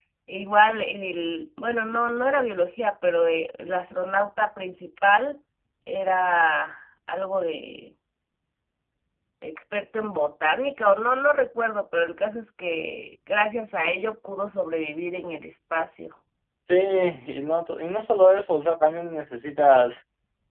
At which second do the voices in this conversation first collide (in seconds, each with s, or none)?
none